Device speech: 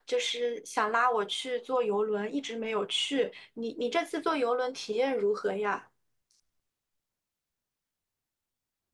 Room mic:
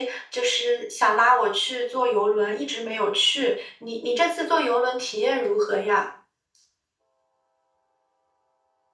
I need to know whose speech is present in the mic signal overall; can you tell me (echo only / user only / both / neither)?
echo only